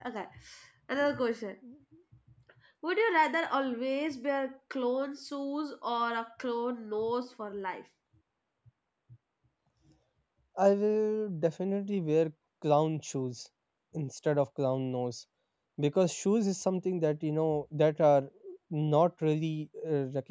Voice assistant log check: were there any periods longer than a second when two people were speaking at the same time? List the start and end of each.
none

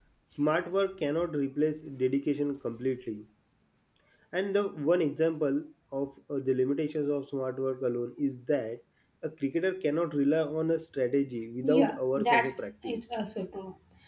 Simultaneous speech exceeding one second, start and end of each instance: 11.6-13.0

